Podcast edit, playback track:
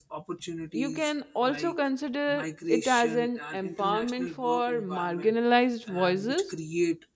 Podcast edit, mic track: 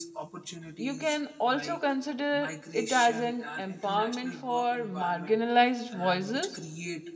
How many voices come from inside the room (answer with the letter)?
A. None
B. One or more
A